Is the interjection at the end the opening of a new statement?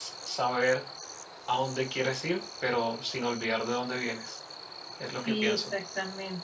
Yes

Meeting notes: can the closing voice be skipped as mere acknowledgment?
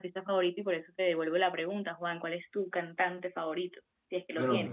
No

